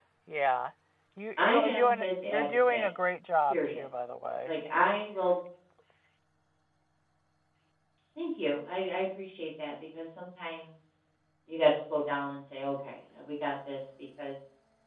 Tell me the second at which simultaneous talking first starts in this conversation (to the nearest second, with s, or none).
1 s